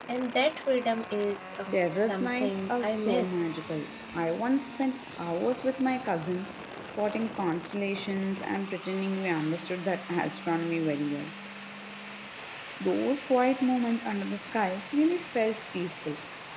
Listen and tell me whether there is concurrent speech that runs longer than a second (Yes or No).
Yes